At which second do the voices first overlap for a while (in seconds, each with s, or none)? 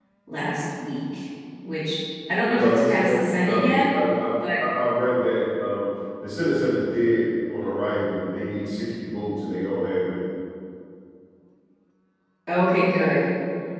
2.5 s